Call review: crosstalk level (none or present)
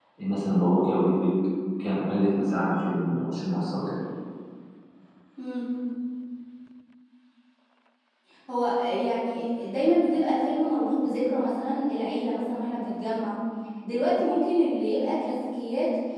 none